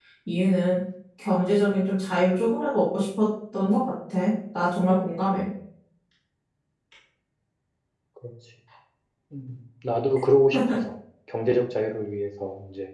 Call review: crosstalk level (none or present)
none